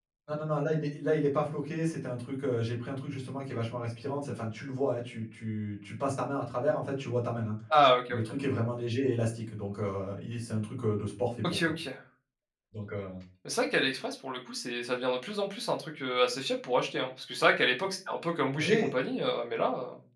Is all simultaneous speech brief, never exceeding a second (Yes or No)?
Yes